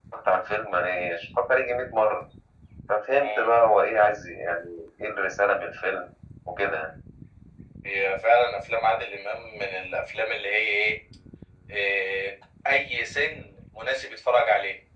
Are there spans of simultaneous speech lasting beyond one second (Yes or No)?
No